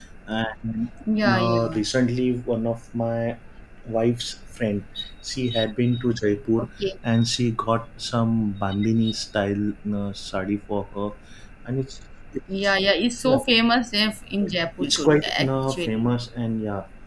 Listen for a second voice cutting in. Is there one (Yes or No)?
Yes